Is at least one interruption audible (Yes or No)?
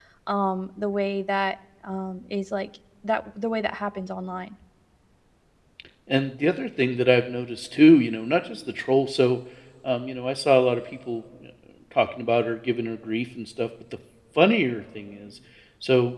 No